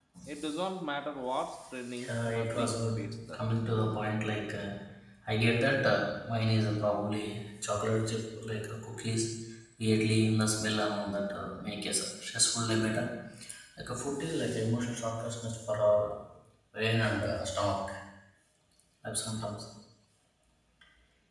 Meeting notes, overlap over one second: present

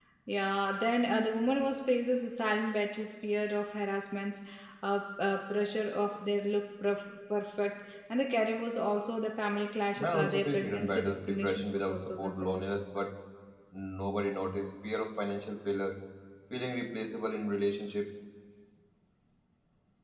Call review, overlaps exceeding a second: present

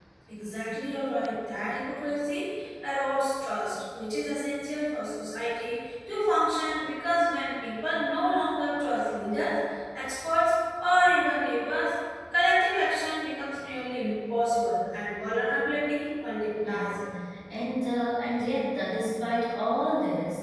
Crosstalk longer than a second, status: none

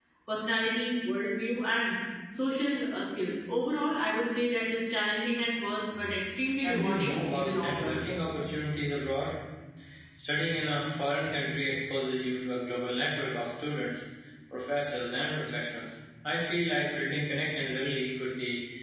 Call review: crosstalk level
present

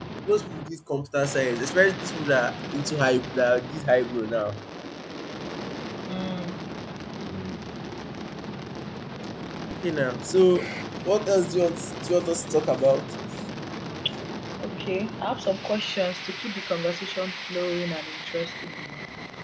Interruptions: none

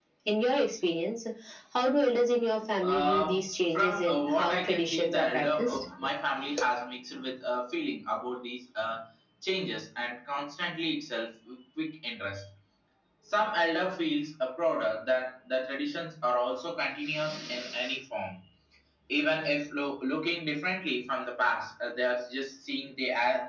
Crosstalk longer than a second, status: present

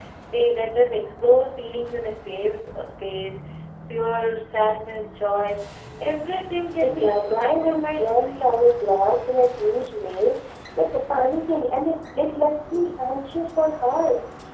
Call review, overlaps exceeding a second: present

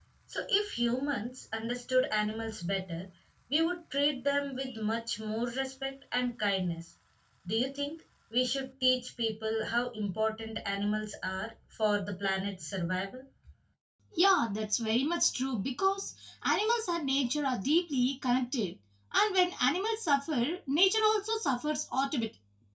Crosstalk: none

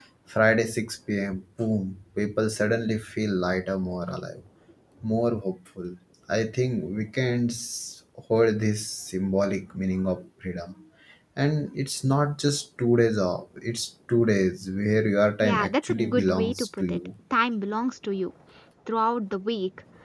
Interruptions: present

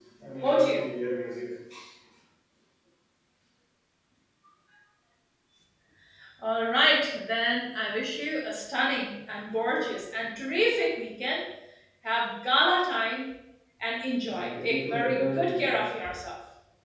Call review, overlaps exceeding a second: present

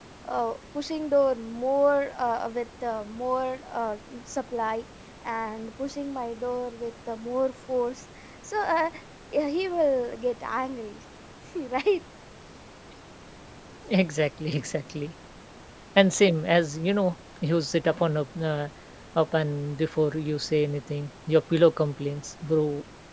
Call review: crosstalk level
none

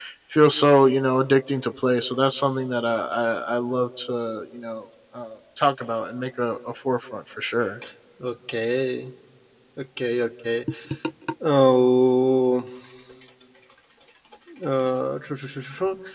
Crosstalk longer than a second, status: none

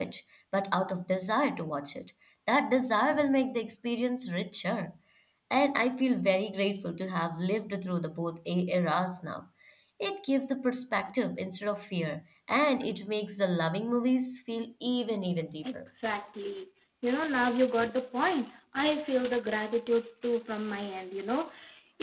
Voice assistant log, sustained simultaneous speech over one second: none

